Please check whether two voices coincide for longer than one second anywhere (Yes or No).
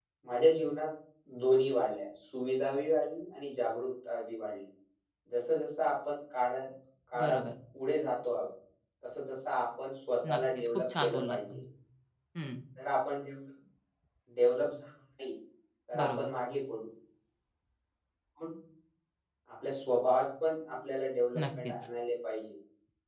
Yes